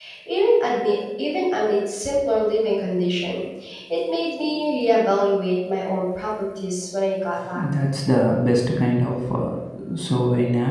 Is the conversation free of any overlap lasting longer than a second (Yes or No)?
Yes